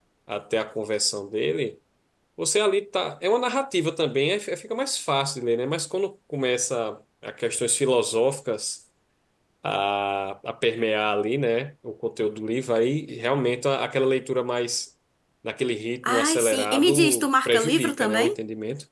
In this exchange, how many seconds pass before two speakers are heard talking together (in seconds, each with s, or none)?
16.0 s